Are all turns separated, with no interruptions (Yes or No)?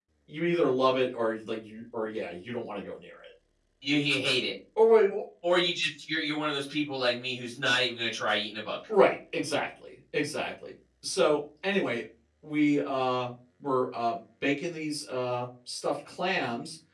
Yes